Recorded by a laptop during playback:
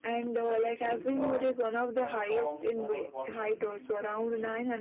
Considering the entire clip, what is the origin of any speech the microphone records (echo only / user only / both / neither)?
both